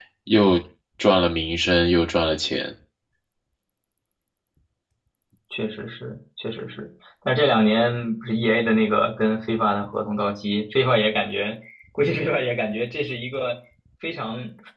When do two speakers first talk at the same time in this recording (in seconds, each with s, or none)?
none